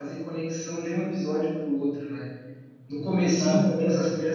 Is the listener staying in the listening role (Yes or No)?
Yes